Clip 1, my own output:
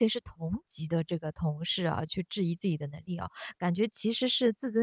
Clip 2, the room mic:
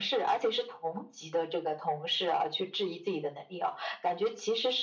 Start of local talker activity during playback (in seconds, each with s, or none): none